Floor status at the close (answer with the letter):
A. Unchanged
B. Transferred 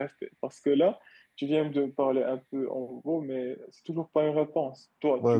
B